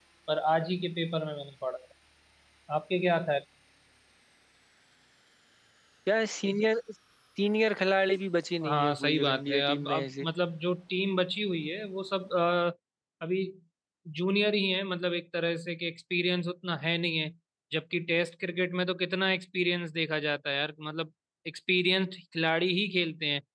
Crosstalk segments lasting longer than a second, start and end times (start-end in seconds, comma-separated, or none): 8.6-10.3